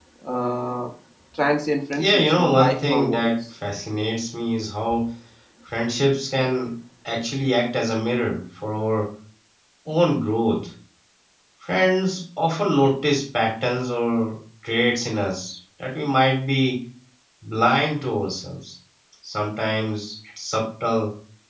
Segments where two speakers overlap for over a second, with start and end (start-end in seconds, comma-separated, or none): 1.9-3.3